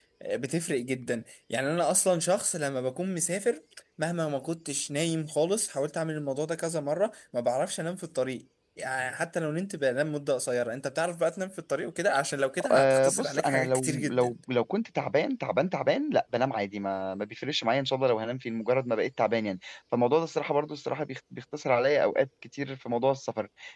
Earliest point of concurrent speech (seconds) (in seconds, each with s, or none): 12.6 s